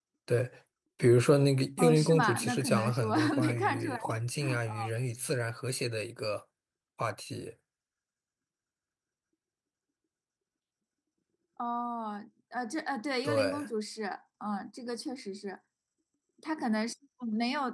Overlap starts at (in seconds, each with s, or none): 1.8 s